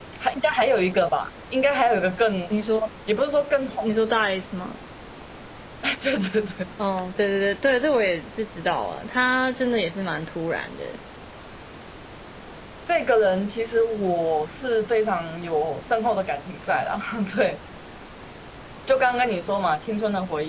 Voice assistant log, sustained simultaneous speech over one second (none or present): none